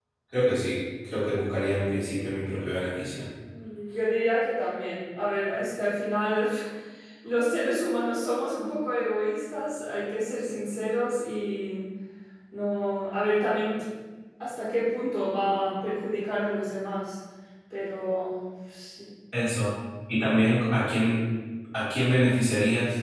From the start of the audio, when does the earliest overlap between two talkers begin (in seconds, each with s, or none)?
none